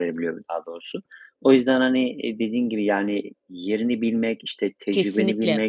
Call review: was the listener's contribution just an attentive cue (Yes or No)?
Yes